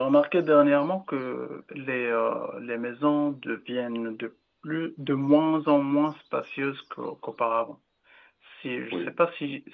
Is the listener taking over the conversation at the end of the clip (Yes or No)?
No